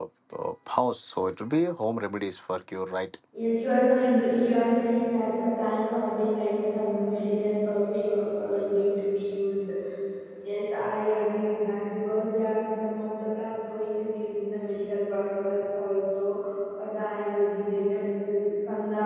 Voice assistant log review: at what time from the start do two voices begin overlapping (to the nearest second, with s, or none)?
none